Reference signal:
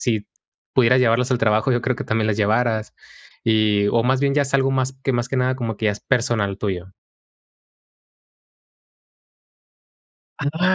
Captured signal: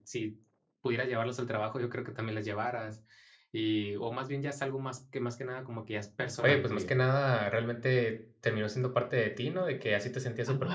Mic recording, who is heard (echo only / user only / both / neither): both